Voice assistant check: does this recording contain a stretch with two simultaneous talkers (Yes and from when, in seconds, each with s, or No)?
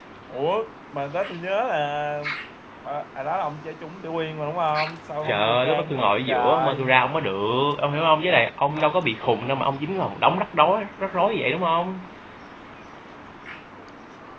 Yes, from 5.2 s